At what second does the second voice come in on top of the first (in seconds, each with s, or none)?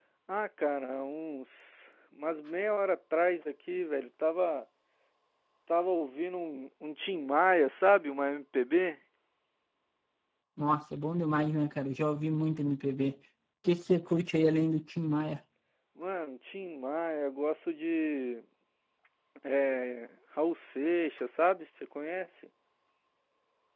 none